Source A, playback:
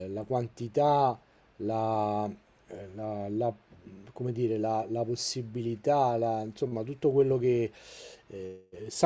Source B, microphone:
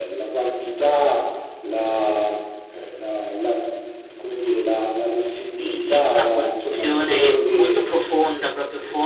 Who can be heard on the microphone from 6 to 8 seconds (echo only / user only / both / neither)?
both